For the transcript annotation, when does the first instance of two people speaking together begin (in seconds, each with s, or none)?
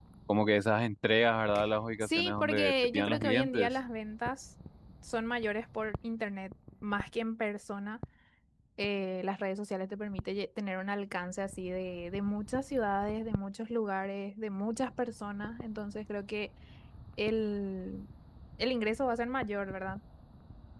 2.0 s